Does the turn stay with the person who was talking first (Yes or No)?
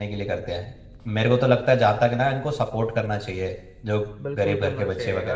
No